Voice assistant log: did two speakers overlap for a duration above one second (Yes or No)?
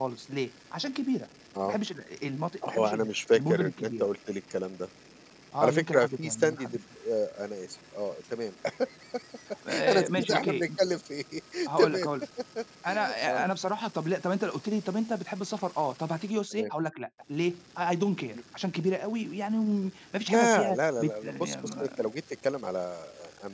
Yes